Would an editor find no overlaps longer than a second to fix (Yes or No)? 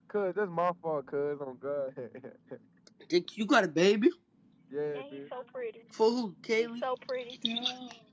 Yes